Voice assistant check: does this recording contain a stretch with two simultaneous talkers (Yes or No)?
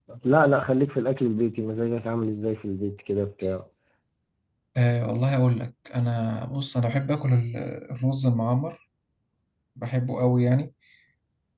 No